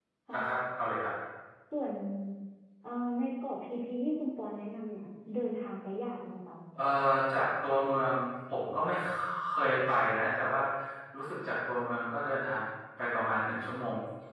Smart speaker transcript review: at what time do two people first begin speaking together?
none

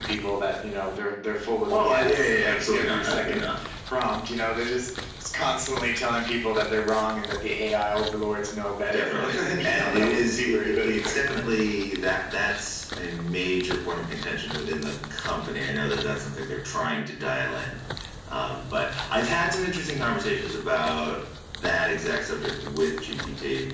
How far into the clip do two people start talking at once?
2 s

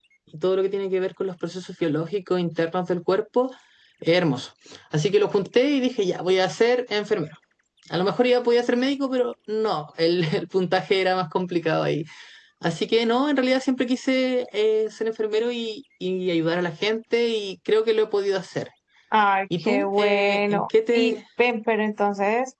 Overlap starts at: 20 s

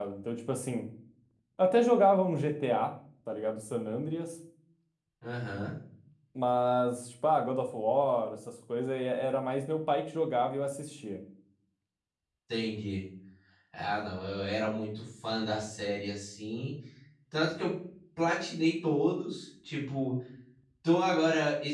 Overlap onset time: none

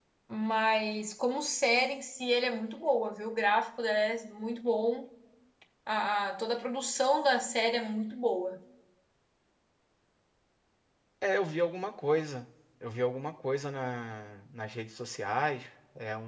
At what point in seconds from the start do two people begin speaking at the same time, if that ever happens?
none

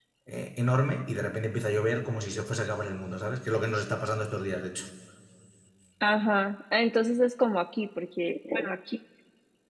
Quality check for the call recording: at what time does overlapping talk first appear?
none

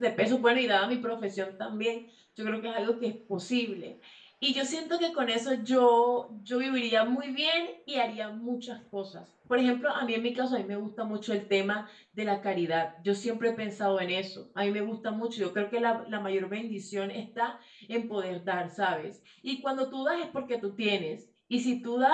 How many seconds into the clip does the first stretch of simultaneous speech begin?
none

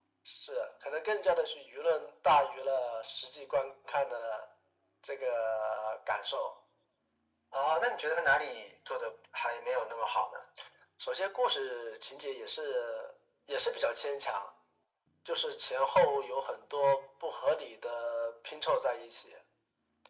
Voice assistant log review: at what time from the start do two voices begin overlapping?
none

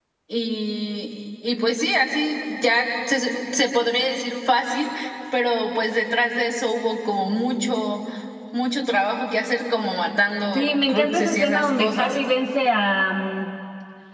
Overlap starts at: 11 s

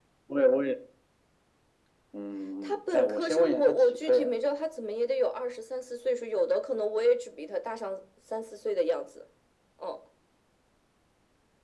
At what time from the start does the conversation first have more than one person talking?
3 s

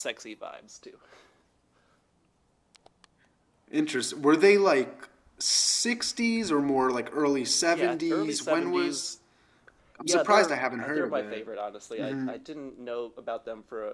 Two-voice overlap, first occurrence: 8 s

